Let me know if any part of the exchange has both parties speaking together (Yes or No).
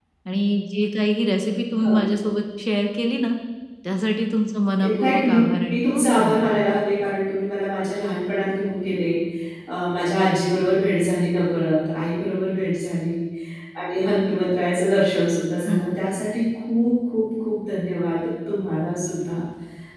Yes